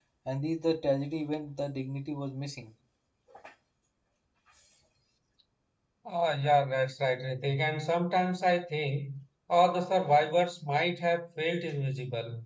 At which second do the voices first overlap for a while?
none

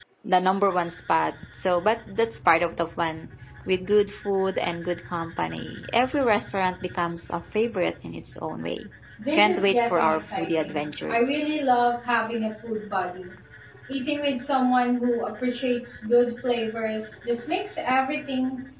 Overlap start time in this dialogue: 9.3 s

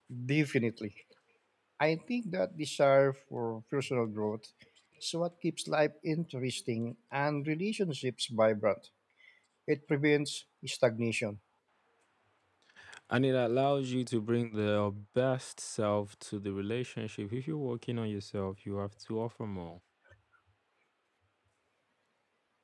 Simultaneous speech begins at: none

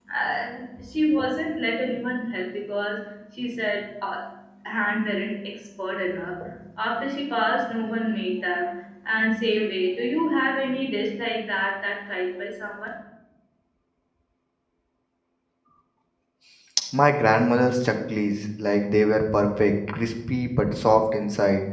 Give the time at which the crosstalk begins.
none

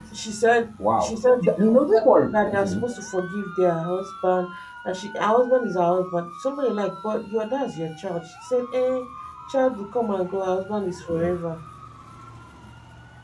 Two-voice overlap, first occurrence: 1.0 s

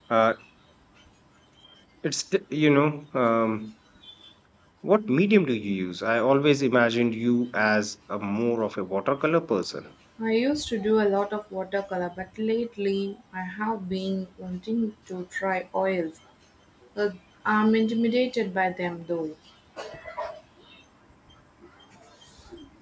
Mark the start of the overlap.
none

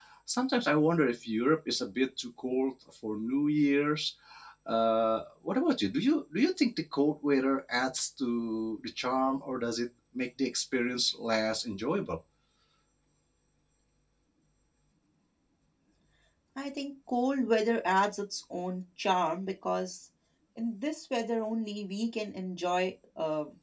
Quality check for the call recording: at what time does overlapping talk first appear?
none

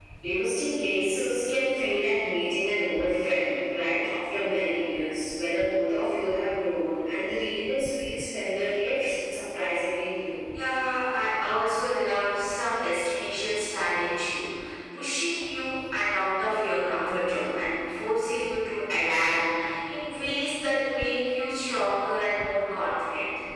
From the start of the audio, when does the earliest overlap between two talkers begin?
none

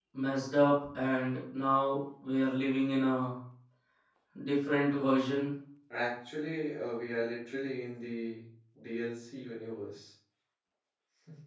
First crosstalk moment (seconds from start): none

